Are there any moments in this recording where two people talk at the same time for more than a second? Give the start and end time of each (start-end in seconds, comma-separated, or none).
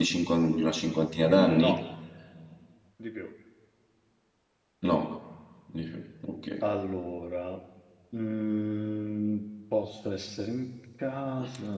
none